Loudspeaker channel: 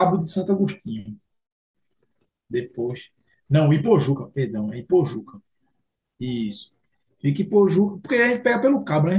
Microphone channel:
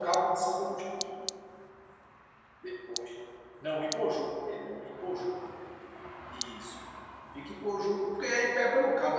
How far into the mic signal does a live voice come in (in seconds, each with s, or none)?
none